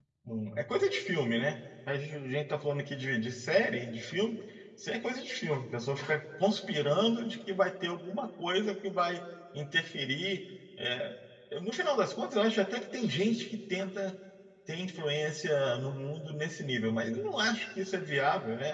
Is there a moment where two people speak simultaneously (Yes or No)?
No